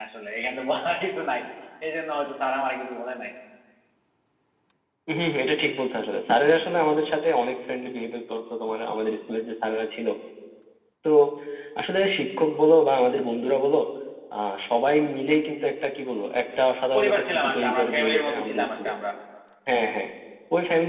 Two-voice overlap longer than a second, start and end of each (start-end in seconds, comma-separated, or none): 16.9-18.9